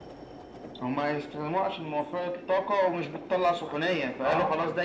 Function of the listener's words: listening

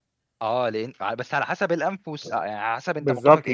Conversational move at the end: taking over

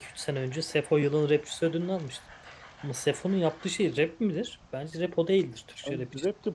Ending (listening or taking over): taking over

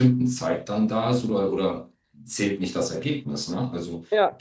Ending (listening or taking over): listening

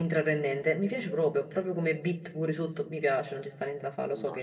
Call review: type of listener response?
taking over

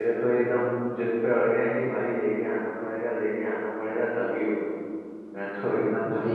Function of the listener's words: taking over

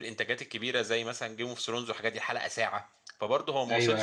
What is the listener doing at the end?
listening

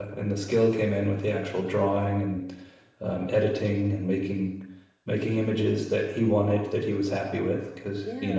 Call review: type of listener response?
taking over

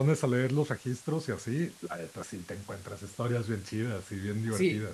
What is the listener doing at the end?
taking over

